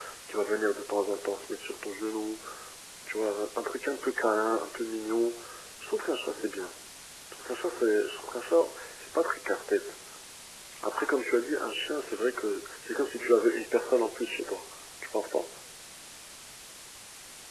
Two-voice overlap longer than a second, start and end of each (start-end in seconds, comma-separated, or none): none